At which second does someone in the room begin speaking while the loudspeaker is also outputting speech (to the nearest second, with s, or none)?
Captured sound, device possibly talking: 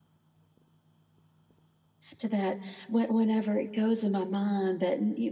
2 s